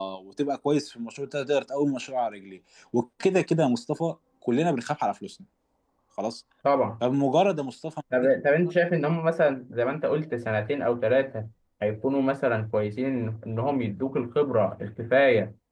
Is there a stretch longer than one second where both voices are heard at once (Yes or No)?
No